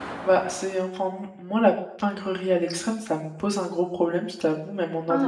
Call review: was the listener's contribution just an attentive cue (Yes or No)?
No